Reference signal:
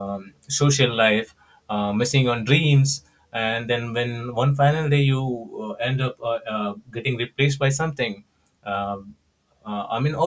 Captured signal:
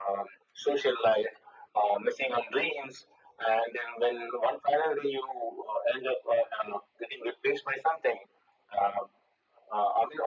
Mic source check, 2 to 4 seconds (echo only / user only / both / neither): echo only